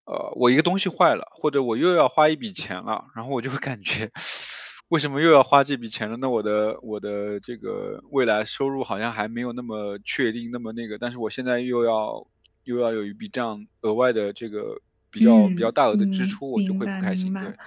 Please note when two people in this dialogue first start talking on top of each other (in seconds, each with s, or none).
15.2 s